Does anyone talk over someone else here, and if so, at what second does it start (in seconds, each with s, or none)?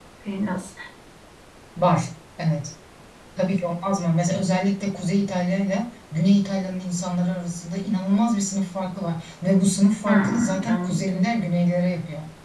10.0 s